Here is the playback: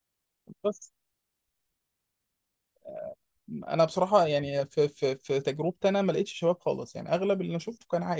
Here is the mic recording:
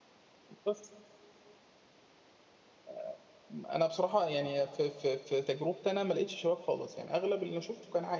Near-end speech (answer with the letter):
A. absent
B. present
A